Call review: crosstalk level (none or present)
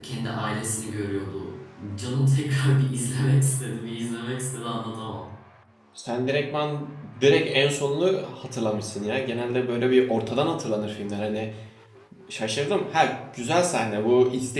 none